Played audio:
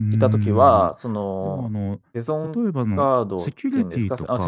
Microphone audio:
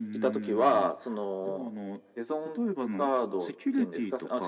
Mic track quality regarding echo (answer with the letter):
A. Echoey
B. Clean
A